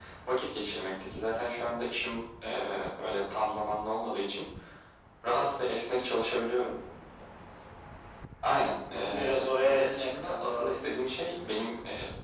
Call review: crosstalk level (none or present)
present